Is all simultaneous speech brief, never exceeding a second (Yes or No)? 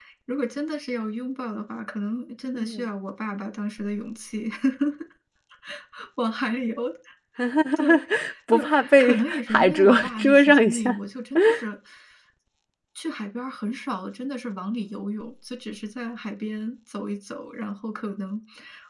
No